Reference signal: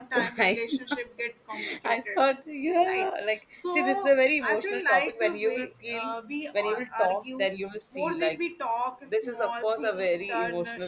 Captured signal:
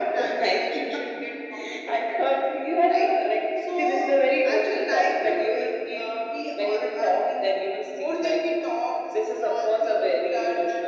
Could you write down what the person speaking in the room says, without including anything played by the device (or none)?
none